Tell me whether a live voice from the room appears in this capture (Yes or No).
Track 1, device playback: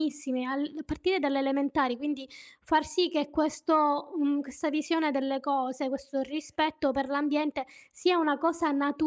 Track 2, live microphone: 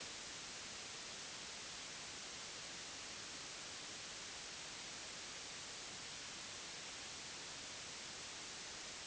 No